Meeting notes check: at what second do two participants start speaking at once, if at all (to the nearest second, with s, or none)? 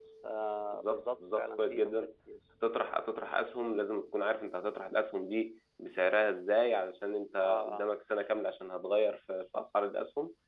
1 s